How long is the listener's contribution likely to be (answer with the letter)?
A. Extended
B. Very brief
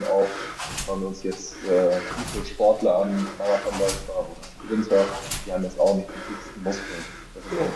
B